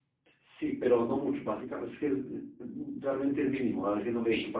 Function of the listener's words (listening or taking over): taking over